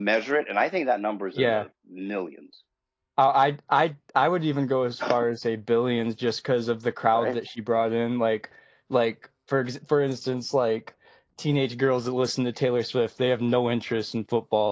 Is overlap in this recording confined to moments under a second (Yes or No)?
Yes